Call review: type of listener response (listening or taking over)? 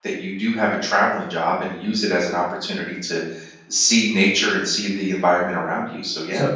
taking over